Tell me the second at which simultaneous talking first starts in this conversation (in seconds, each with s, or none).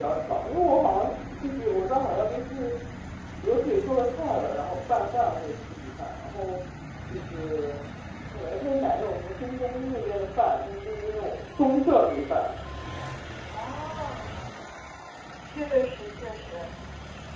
none